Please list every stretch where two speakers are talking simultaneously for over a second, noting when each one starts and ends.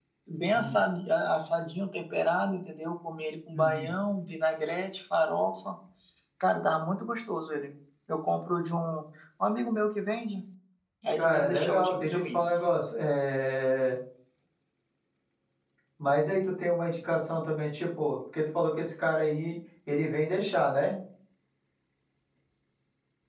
11.2-12.4

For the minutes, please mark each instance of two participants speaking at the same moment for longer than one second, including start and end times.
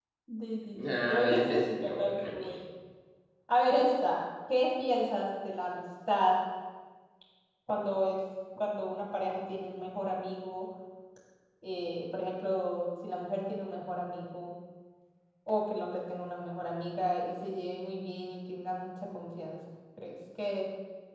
0.8-2.5

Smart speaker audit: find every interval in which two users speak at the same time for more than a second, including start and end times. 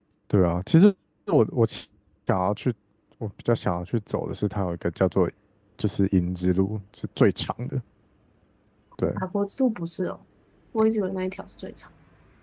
none

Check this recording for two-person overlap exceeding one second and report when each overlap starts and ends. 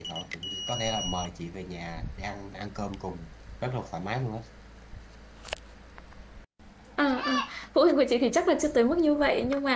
none

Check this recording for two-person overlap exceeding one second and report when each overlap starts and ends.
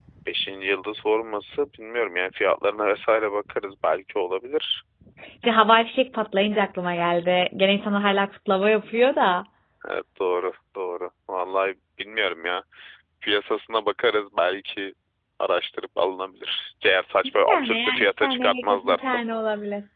17.2-19.2

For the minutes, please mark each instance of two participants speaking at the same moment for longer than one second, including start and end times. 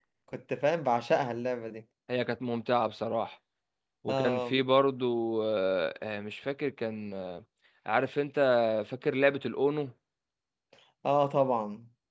none

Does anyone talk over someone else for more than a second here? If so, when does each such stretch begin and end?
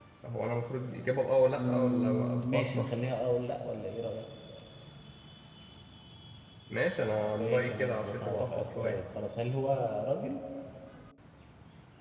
1.6-2.9, 7.4-9.0

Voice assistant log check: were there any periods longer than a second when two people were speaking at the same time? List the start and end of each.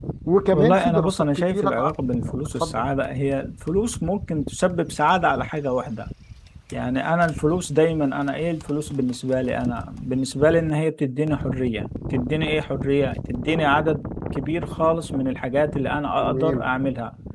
0.5-1.9

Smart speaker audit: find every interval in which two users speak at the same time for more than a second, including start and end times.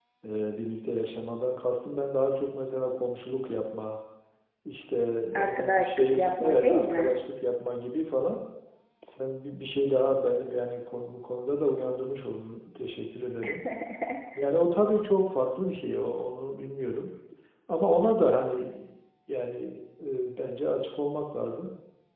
5.3-7.1

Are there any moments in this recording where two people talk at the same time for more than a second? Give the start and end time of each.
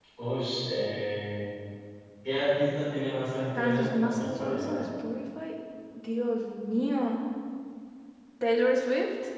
3.6-4.8

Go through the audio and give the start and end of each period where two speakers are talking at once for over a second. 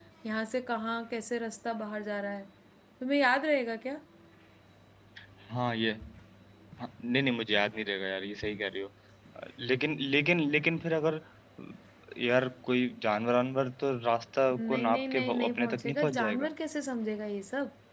14.6-16.5

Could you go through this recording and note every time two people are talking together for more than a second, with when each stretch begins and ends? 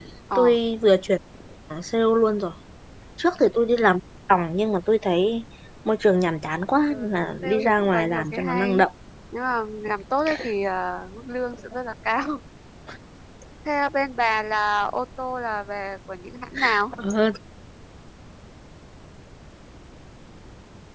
6.9-8.8

